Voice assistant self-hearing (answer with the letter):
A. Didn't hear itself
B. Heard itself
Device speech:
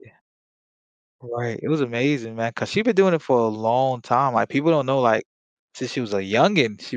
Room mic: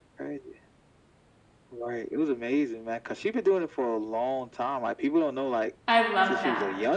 B